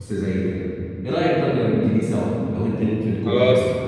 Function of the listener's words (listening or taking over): taking over